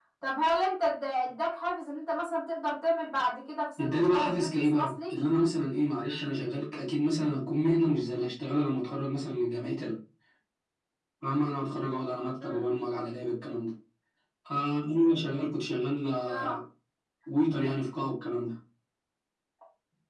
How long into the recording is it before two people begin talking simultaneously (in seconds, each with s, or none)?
3.8 s